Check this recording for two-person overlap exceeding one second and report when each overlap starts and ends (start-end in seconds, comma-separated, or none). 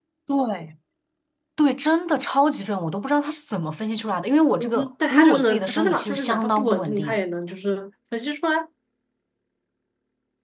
4.6-7.2